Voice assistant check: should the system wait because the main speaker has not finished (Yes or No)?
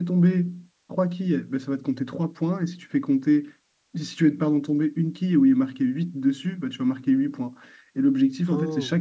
Yes